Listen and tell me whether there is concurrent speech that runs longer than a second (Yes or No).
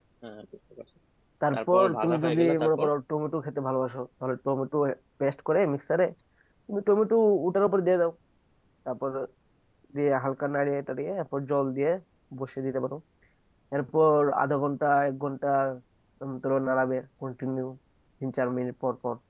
Yes